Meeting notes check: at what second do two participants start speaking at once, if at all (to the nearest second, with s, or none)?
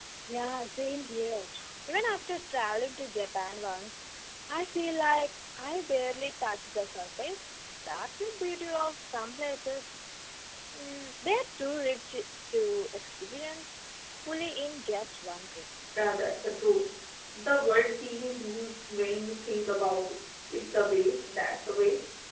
none